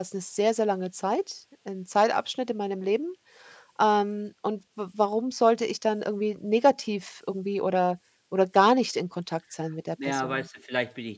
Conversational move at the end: taking over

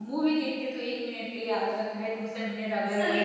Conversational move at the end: taking over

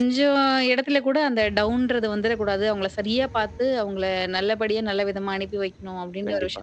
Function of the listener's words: taking over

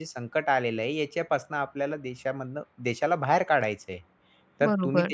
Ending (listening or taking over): listening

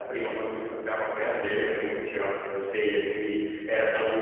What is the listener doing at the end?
listening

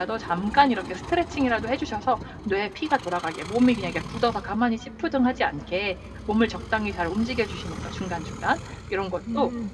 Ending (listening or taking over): listening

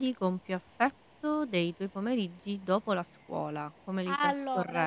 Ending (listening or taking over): taking over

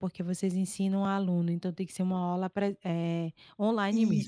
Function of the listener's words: taking over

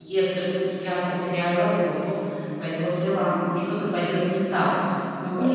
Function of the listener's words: listening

